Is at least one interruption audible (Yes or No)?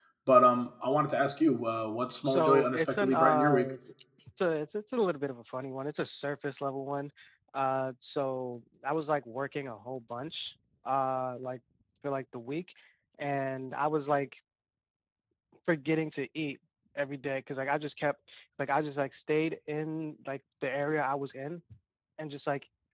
Yes